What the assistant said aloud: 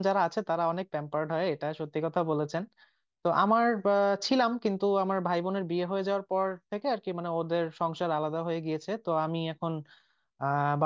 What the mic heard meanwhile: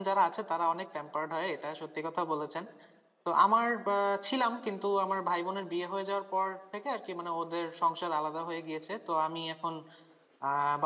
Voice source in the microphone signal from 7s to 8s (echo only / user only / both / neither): echo only